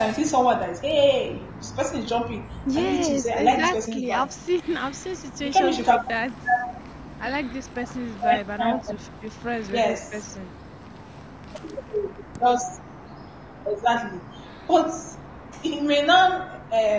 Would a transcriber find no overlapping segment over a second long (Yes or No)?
No